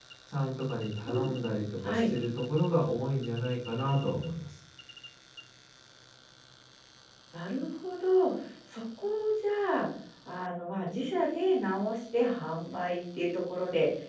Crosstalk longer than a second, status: none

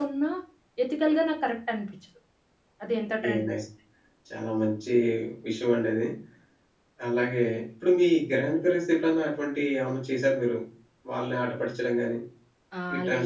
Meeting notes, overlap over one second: none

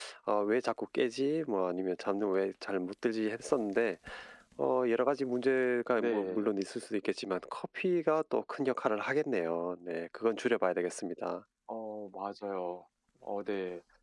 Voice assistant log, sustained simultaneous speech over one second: none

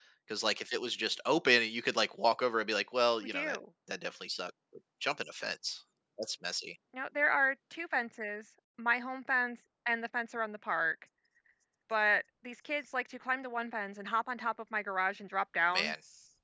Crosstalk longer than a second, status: none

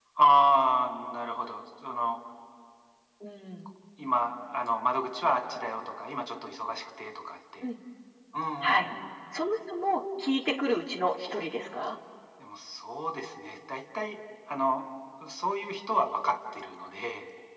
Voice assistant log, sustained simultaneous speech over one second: none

